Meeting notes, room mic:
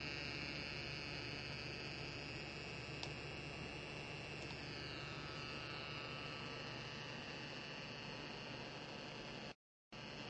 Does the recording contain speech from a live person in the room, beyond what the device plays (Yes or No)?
No